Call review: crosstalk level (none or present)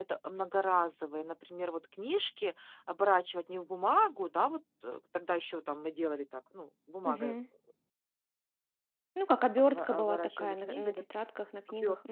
present